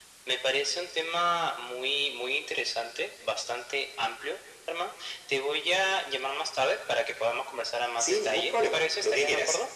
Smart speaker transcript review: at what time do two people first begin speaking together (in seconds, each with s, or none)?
8.0 s